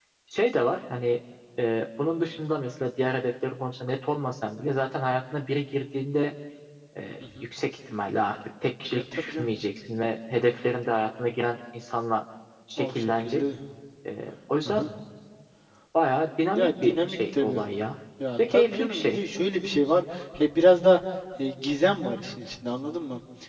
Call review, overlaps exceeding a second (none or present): present